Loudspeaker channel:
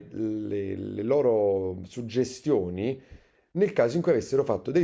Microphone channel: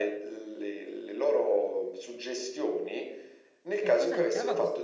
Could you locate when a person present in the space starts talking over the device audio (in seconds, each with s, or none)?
3.8 s